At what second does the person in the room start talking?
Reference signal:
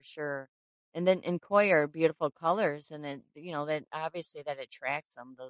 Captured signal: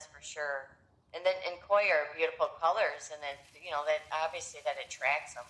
none

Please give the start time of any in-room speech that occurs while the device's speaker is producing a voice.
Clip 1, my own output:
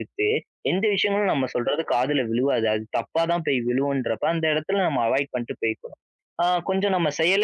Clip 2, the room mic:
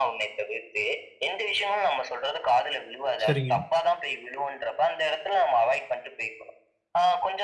3.2 s

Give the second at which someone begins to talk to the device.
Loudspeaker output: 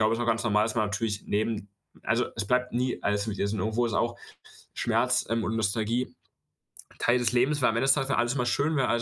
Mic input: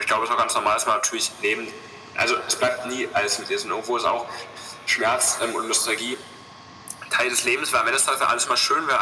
none

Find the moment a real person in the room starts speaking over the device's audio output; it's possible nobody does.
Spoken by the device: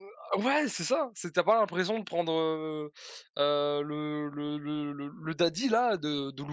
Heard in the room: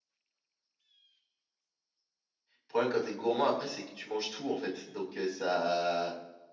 2.6 s

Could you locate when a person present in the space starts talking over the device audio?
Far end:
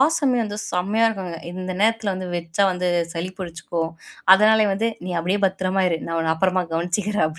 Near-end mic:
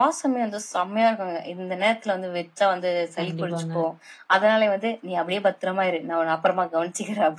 3.2 s

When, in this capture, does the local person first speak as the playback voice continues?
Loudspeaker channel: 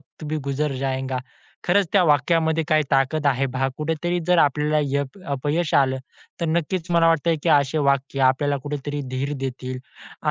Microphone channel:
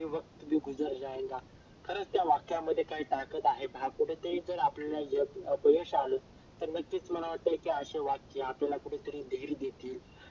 none

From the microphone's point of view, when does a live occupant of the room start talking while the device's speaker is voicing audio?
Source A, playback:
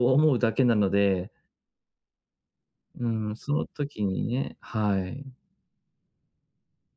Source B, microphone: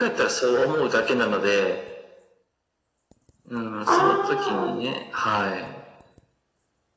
3.9 s

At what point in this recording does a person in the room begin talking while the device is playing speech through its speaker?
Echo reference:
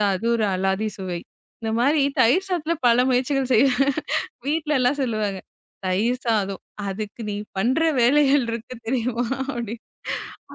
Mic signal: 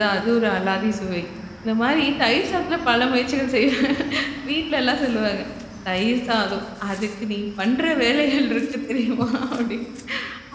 none

